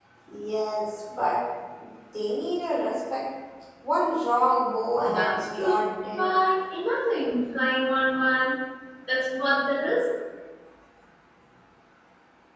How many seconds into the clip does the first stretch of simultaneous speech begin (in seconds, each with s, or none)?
5.0 s